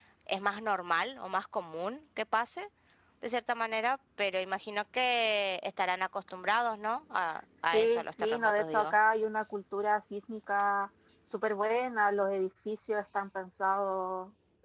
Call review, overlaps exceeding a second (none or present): present